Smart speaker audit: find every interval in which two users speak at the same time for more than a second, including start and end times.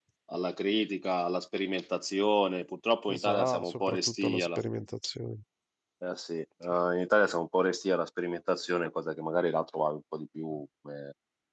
3.1-4.6

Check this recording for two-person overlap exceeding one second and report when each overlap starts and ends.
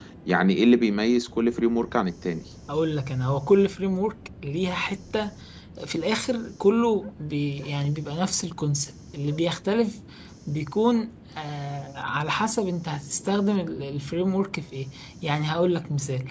none

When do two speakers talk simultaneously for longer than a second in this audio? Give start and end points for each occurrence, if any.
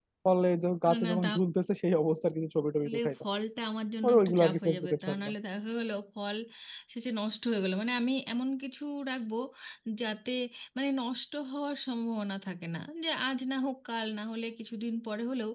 4.0-5.3

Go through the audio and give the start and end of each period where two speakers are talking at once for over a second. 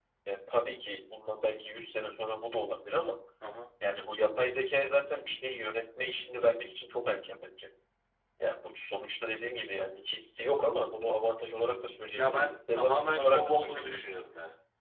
12.2-14.0

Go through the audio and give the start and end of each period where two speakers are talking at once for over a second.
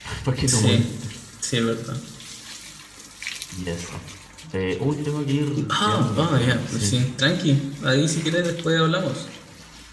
5.7-7.0

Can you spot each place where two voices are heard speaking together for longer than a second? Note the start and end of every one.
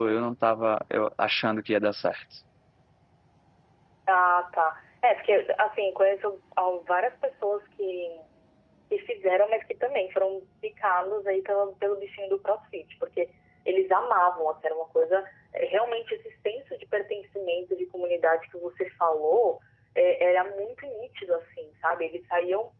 none

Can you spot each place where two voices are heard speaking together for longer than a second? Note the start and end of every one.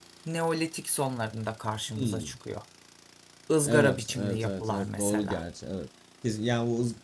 3.6-5.4

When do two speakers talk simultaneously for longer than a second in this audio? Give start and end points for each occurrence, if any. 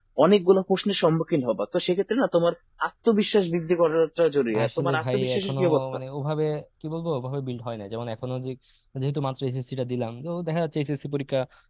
4.6-5.8

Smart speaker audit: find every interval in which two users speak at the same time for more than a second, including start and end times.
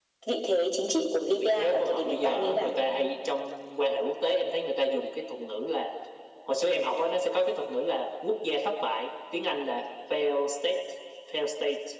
1.4-2.7

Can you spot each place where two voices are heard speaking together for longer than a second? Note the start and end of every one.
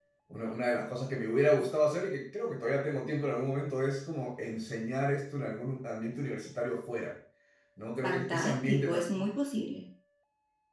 8.0-9.3

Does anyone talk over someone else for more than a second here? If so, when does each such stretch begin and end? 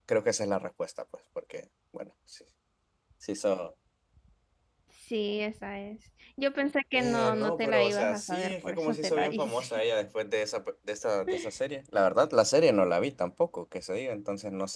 6.9-9.7

